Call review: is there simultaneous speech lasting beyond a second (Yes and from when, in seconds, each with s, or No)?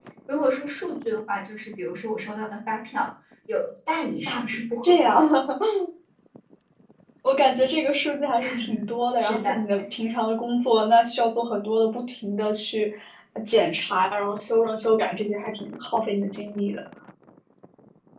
No